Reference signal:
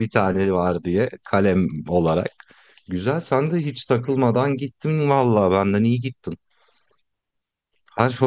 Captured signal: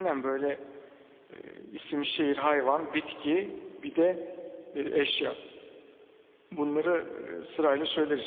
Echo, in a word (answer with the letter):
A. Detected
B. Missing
B